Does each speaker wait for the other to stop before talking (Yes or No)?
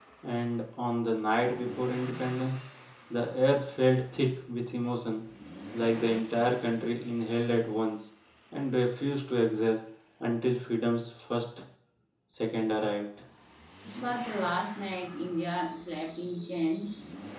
Yes